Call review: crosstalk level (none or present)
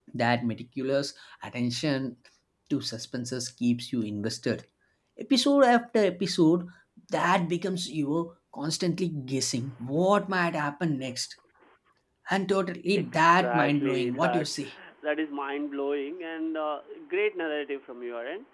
present